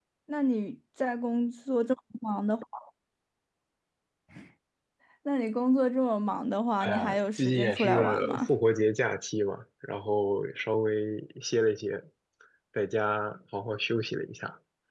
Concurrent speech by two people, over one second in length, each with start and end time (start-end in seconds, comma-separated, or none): 6.8-8.5